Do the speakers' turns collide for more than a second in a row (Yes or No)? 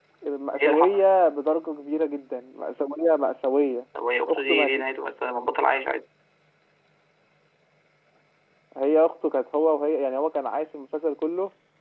No